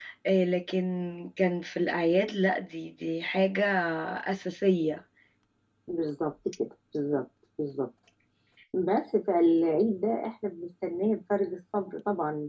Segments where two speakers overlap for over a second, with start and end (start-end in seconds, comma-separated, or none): none